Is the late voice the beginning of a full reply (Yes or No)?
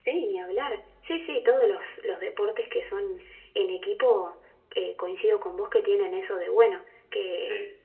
No